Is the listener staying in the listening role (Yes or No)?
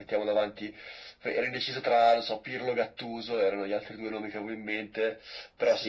Yes